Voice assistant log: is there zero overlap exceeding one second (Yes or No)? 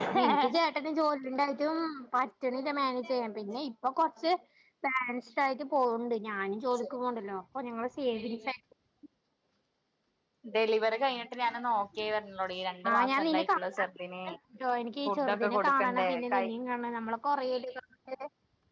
No